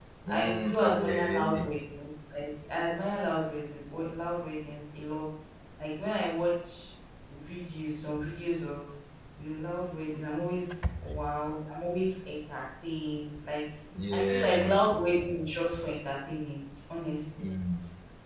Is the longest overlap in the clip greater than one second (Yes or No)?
Yes